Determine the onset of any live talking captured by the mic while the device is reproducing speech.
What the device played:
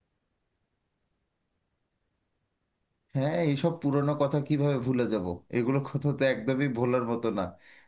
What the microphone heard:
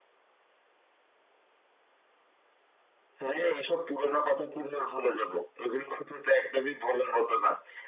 none

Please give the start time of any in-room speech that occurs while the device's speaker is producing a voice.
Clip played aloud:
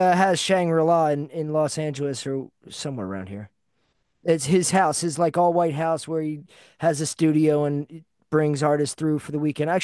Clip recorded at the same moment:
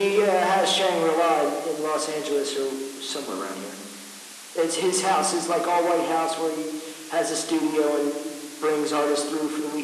none

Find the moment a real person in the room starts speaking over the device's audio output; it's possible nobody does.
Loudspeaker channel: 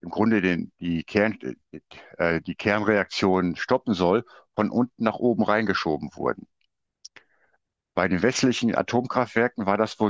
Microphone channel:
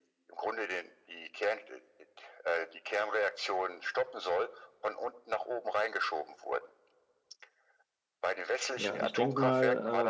8.7 s

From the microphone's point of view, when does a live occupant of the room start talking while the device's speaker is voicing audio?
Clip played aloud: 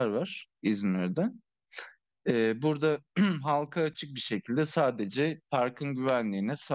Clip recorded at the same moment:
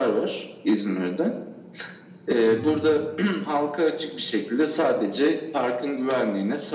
2.5 s

